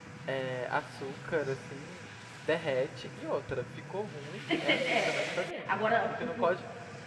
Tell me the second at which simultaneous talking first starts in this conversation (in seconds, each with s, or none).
4.5 s